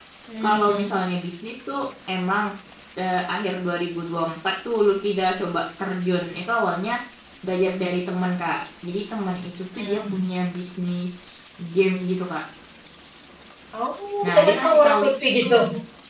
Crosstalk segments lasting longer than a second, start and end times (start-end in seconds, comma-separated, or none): 14.2-15.6